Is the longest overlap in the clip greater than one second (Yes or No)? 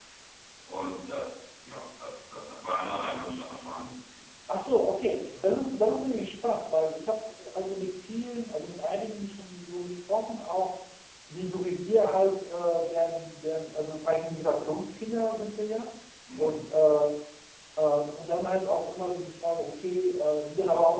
No